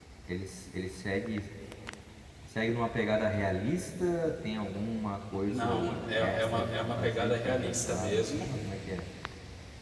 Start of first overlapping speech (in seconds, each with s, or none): 5.5 s